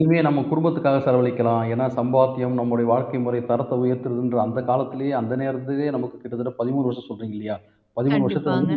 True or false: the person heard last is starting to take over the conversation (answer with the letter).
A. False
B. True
A